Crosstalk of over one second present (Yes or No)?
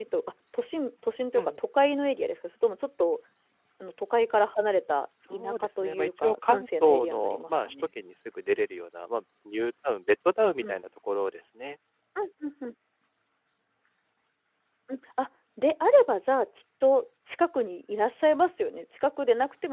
Yes